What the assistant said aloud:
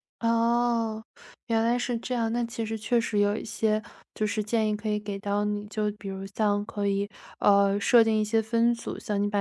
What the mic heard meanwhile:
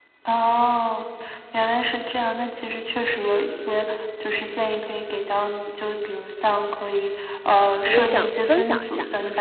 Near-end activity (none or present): present